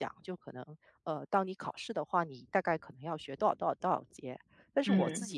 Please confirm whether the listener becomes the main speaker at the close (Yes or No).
No